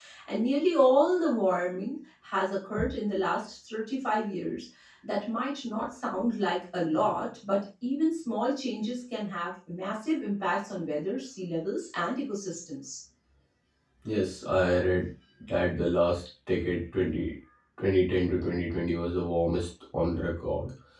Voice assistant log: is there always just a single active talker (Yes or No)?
Yes